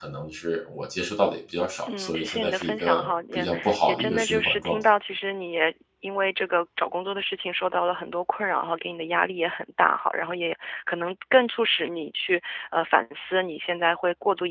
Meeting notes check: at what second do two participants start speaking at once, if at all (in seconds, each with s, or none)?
1.9 s